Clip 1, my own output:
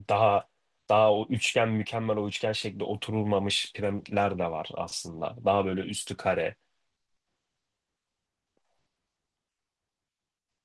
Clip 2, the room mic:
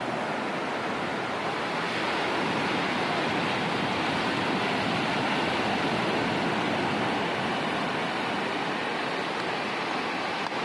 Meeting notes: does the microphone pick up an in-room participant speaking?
No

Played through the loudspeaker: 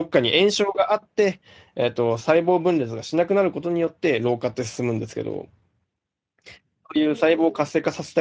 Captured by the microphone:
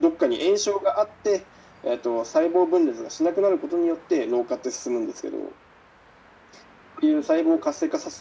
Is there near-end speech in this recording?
No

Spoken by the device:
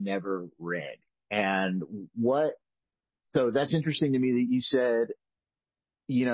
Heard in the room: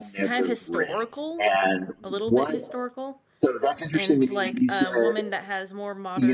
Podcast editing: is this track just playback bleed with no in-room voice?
No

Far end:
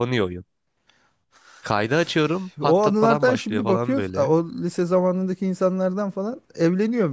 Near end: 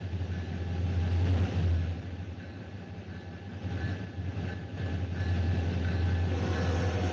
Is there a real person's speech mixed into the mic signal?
No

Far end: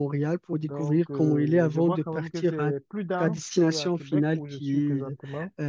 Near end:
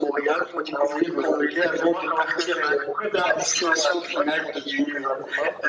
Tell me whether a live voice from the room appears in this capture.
No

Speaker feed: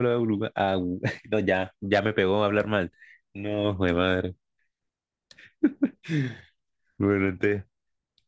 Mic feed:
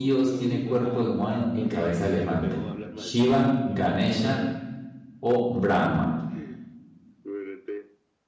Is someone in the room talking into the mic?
Yes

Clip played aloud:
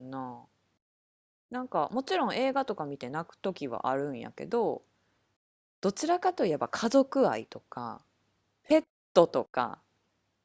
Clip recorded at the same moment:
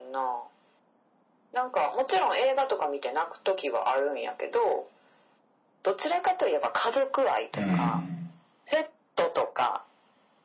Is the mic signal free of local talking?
No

